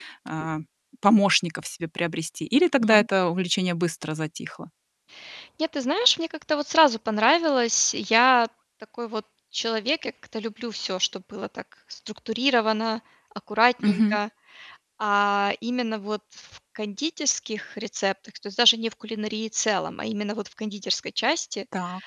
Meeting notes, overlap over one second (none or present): none